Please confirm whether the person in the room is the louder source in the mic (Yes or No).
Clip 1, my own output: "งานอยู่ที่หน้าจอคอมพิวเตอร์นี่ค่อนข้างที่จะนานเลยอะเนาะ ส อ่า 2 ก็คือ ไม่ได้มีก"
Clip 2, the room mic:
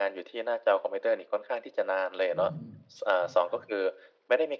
No